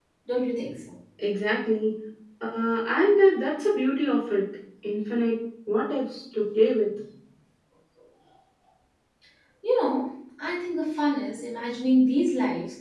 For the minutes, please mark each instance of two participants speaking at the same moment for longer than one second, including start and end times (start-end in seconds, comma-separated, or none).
none